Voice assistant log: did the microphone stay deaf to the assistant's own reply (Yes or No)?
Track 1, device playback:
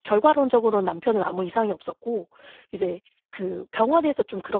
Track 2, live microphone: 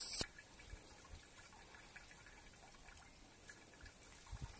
Yes